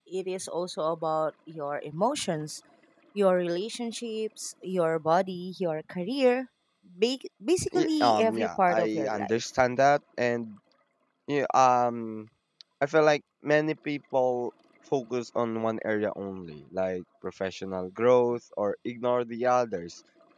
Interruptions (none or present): present